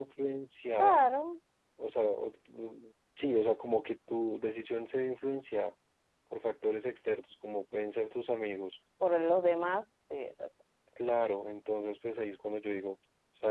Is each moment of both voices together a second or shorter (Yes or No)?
Yes